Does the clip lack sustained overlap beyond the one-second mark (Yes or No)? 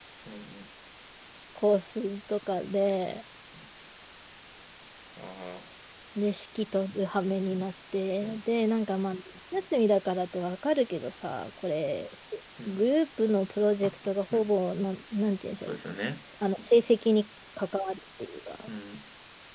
Yes